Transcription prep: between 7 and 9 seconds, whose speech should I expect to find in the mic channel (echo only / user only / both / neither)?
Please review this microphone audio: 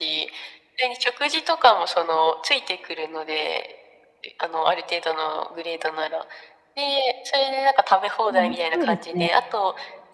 both